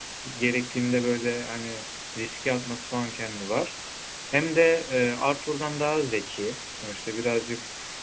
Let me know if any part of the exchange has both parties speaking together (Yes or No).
No